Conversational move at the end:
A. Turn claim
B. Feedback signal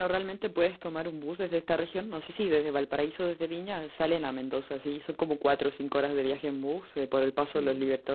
B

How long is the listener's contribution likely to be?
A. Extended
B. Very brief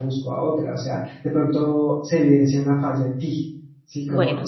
A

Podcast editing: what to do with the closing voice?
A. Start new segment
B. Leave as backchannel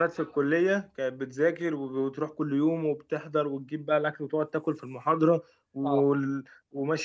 B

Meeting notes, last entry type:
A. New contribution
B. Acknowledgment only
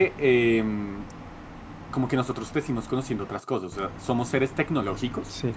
A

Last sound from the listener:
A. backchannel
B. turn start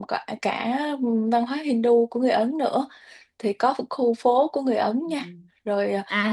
B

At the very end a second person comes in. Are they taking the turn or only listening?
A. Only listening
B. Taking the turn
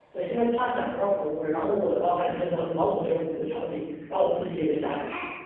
B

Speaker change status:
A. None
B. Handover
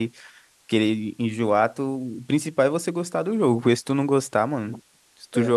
A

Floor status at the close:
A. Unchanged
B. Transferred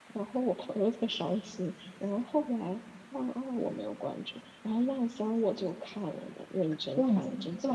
B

